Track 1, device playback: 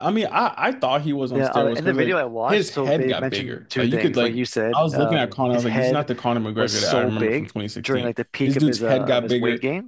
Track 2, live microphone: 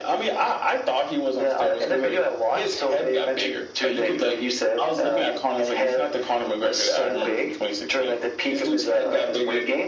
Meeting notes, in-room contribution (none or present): none